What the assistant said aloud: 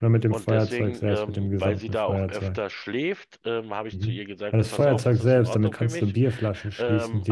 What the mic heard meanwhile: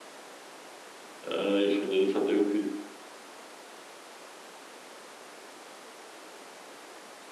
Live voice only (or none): Äh, ich finde, das hat irgendwie